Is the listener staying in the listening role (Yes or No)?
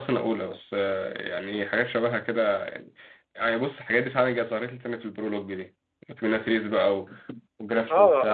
No